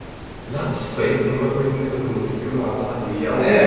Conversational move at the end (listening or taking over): taking over